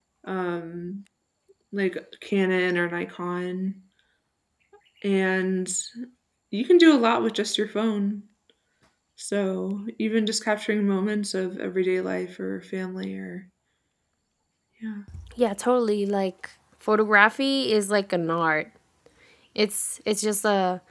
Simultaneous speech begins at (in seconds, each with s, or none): none